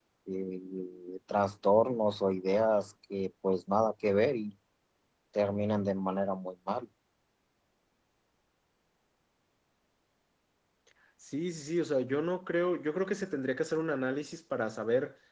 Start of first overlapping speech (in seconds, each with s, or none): none